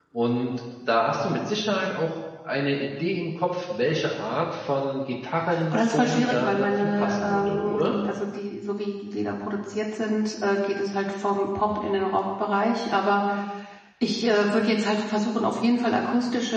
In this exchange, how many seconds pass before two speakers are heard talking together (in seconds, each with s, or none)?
5.5 s